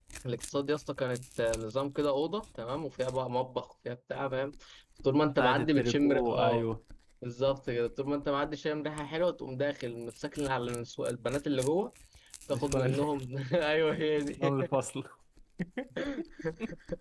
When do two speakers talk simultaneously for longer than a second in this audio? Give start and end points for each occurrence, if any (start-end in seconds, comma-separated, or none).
5.4-6.6